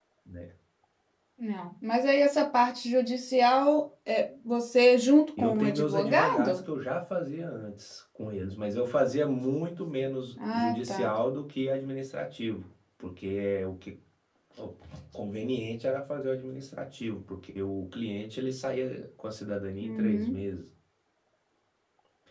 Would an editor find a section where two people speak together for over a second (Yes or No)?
Yes